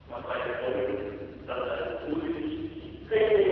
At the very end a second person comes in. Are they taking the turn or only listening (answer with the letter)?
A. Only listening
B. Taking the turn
A